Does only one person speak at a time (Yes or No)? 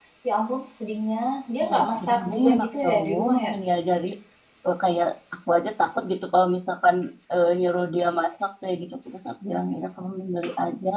No